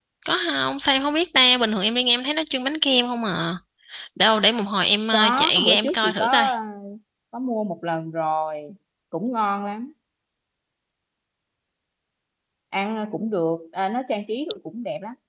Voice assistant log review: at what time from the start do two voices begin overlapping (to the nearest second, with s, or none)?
5 s